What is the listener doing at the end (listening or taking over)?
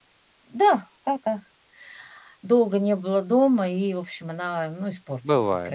taking over